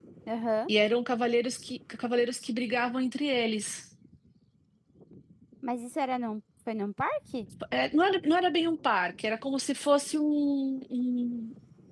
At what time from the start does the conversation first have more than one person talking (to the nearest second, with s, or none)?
none